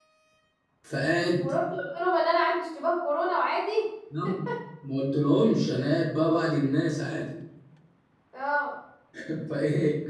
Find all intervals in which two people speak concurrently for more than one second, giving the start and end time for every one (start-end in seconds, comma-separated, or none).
none